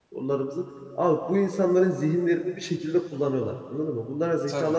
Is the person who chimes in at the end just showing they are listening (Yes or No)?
No